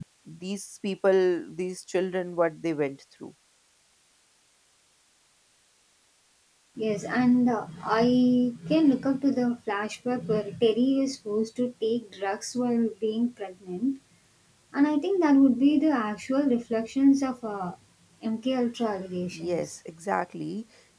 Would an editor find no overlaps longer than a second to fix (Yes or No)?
Yes